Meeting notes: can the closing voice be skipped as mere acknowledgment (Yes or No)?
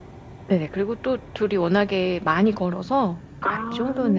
Yes